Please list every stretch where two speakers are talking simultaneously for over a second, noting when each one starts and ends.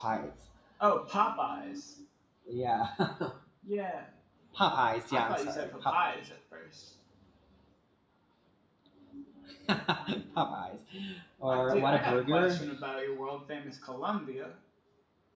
5.1-6.3, 11.5-12.7

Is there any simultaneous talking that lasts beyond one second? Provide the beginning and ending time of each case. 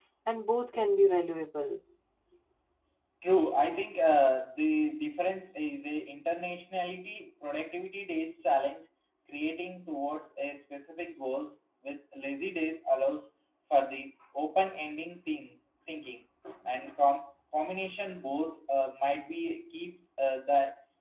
none

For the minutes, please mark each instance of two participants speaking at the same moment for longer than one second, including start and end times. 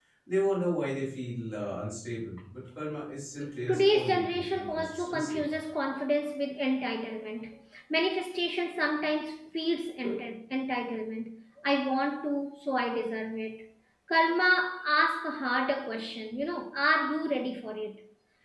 3.7-5.4

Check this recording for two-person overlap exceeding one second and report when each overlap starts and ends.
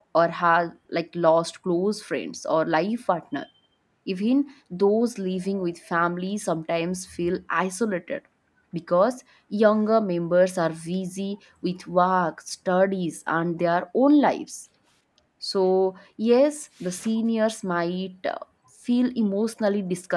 none

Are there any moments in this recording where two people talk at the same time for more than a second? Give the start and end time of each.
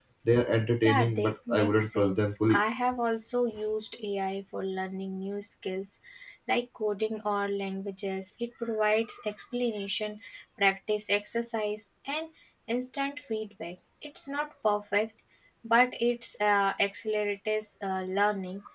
0.8-2.6

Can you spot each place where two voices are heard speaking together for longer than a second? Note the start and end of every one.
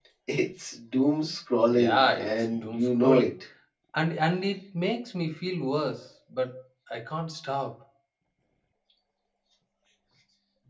1.7-3.3

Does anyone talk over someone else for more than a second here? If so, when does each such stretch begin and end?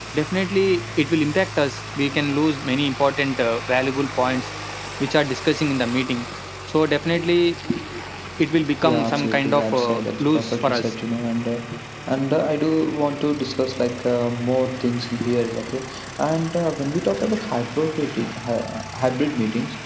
8.8-10.9

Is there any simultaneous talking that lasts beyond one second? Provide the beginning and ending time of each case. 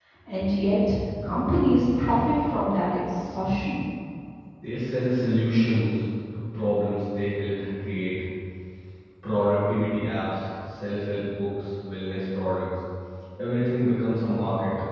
none

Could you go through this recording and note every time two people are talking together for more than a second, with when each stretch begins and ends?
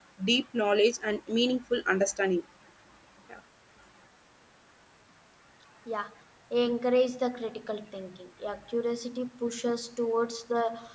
none

